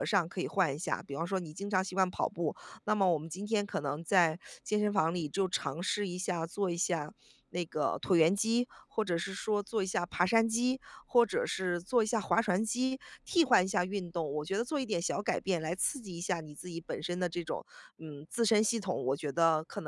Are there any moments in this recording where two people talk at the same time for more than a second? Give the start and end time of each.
none

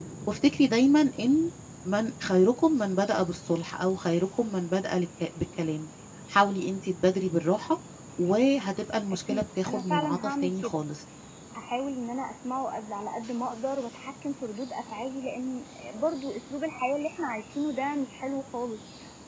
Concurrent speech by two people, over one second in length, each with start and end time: 9.3-10.8

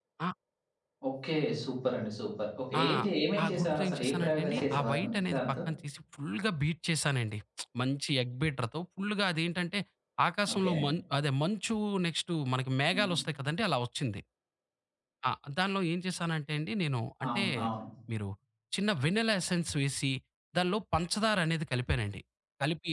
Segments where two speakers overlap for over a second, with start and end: 3.4-5.6

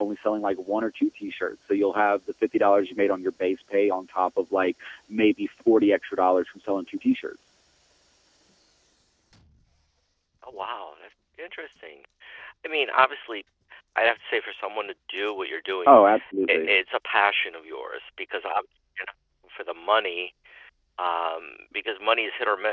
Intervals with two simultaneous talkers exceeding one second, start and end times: none

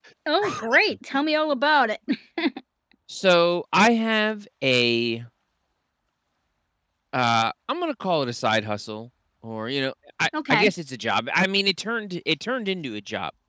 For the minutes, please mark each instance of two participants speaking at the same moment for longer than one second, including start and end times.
none

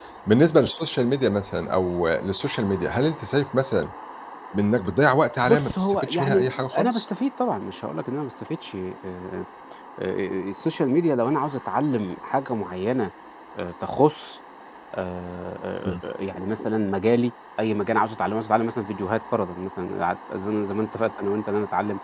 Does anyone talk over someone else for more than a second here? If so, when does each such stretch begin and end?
5.5-7.0

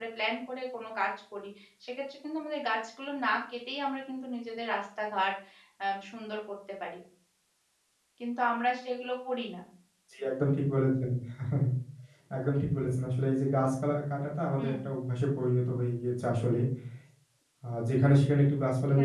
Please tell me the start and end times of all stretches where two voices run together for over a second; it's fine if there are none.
none

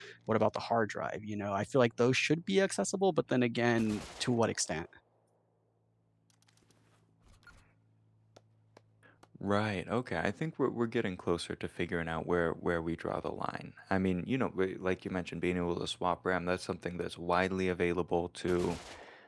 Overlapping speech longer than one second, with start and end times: none

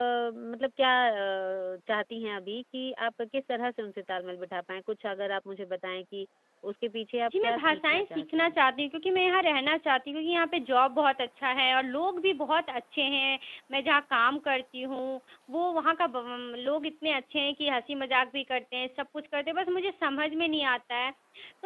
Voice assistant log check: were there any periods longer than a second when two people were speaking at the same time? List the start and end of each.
7.3-8.6

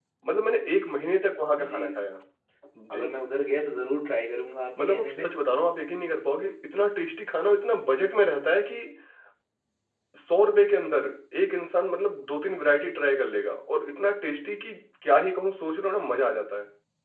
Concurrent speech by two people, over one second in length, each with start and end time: none

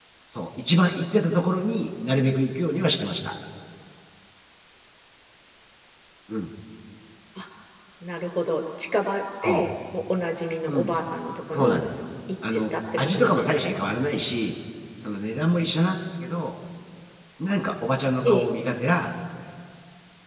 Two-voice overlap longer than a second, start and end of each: 12.5-13.8

